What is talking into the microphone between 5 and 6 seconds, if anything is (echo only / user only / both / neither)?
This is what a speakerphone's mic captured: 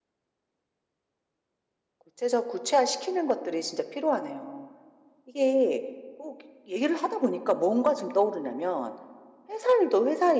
user only